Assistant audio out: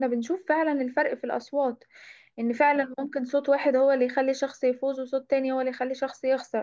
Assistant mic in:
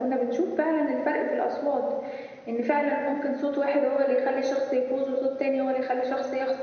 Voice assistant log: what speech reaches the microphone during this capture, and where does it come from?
echo only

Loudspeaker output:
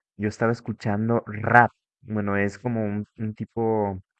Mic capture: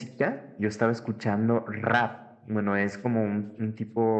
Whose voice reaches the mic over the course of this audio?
echo only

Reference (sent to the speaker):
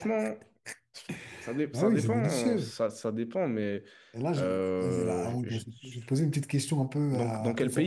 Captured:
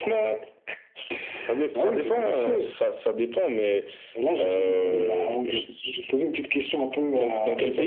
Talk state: both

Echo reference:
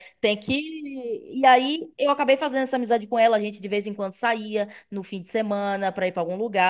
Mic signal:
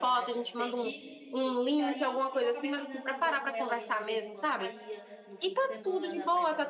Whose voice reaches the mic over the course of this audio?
both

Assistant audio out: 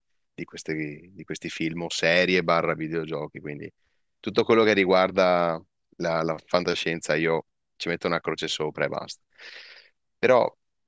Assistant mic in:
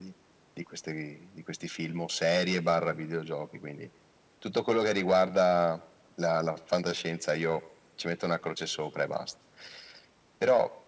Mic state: echo only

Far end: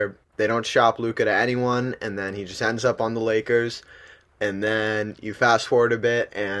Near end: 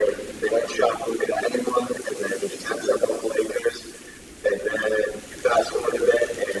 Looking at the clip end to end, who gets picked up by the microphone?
echo only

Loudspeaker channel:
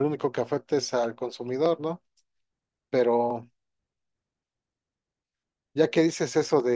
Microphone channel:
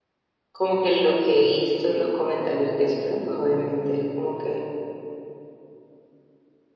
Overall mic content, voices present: user only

